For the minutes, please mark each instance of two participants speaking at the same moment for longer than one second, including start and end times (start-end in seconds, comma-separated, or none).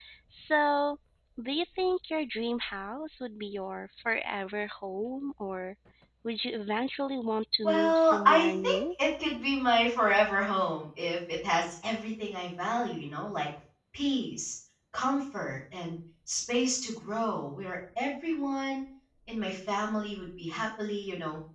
7.6-8.8